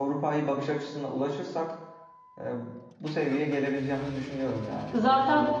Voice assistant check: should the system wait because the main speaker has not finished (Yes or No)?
No